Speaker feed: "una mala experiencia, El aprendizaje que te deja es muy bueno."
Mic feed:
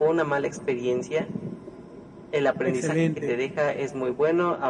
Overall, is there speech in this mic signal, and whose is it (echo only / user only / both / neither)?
both